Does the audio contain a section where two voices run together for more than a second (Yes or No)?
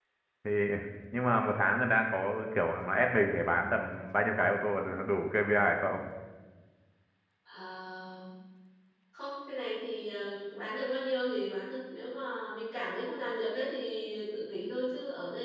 No